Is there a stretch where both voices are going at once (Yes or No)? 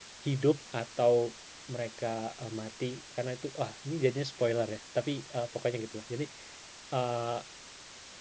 No